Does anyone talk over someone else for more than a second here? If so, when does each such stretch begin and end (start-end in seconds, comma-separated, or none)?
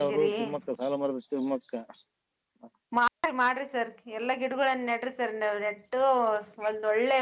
none